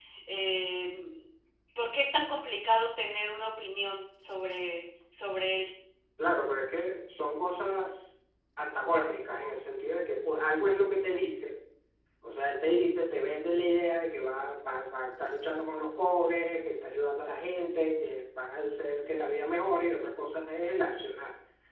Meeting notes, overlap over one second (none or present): none